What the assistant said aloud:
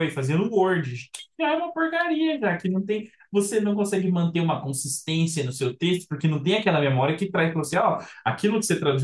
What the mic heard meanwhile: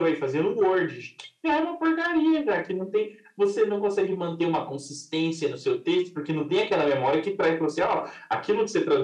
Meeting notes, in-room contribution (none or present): none